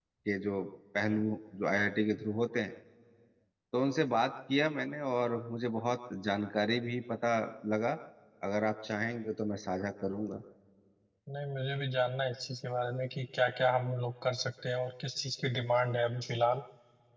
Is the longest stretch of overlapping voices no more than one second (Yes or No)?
Yes